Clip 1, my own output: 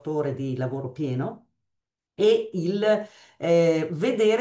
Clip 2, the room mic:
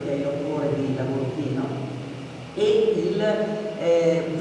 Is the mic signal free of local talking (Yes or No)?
Yes